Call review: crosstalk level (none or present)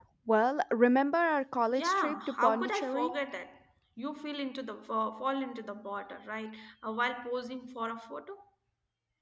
present